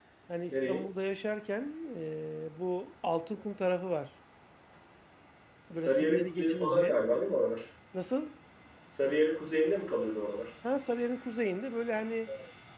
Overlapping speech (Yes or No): Yes